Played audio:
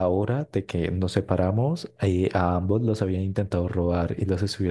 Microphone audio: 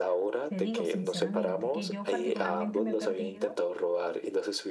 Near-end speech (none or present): present